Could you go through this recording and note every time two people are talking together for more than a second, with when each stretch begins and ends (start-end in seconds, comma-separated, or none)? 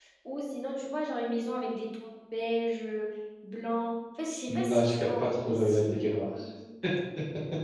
4.5-6.2